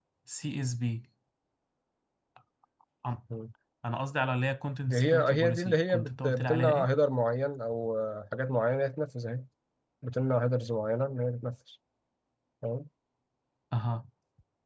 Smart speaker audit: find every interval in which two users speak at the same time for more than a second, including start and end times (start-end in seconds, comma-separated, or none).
4.9-6.9